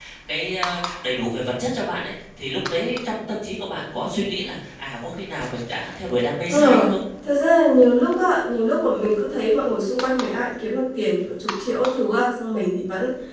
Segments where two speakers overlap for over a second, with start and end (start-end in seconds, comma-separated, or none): none